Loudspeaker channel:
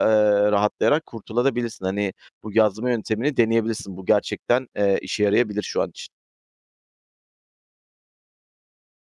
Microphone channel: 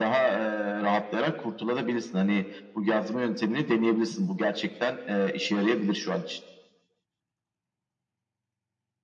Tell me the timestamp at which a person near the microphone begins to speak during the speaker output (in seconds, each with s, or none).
none